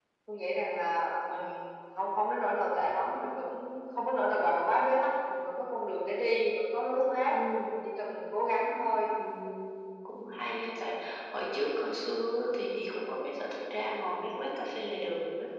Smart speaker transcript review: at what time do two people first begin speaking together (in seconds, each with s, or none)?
none